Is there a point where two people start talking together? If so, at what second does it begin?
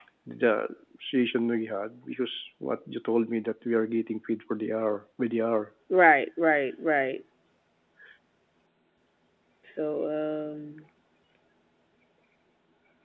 none

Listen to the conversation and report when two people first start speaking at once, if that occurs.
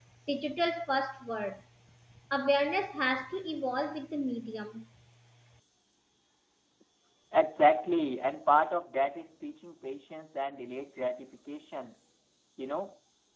none

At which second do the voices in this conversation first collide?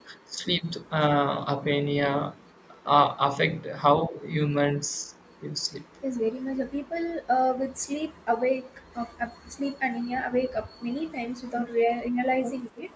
none

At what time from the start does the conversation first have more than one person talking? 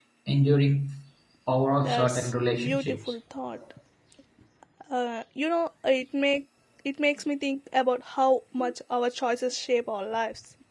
2 s

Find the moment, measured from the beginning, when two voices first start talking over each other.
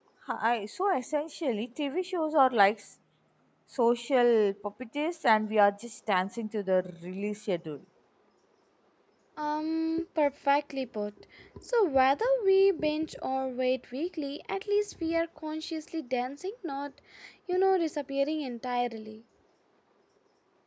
none

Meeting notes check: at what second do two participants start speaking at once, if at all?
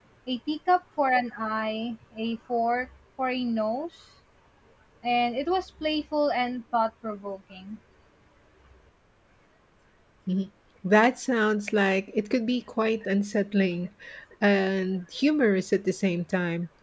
none

